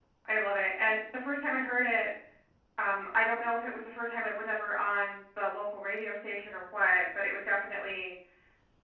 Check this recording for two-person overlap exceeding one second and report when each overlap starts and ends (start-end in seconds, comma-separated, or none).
none